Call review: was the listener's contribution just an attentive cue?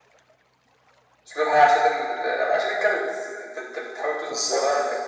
Yes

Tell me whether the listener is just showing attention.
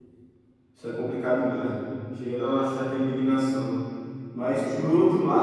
Yes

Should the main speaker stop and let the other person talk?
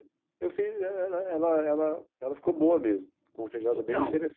Yes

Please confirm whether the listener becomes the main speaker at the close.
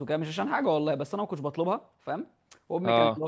No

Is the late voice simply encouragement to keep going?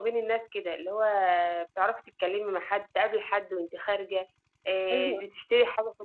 Yes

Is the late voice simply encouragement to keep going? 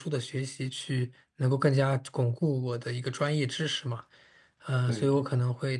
Yes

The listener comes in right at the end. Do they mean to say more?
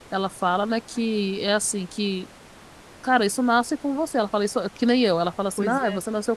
No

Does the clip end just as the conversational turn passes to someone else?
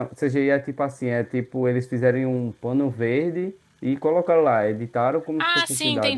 Yes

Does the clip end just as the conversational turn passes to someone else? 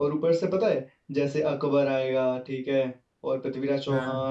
No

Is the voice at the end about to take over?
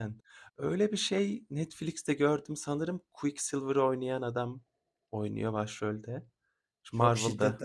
Yes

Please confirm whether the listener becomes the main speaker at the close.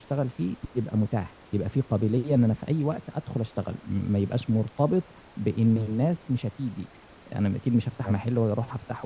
No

